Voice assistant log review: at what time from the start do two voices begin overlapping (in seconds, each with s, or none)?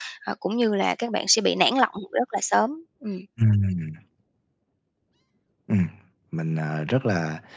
none